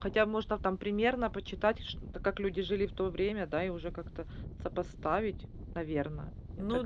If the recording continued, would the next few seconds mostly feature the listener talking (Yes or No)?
Yes